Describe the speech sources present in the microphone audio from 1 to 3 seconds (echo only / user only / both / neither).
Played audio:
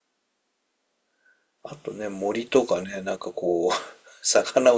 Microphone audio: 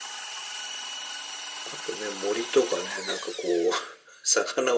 echo only